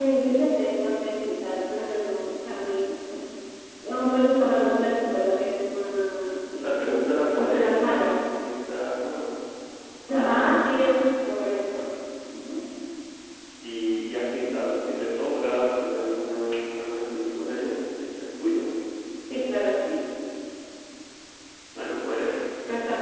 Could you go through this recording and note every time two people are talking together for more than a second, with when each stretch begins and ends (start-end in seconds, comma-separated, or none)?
6.6-8.1